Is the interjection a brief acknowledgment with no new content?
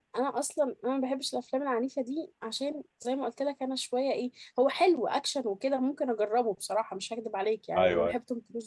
Yes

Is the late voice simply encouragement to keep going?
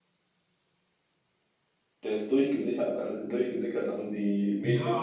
No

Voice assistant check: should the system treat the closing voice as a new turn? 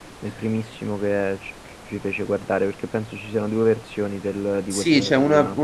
Yes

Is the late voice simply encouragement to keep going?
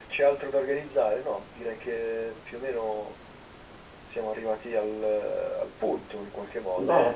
No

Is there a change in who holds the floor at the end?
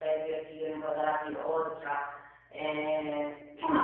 No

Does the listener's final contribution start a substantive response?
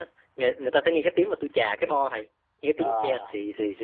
No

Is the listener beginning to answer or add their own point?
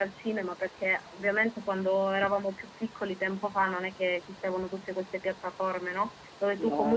No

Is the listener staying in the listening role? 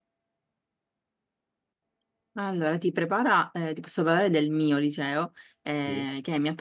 Yes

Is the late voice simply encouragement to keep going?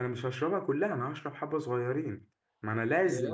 Yes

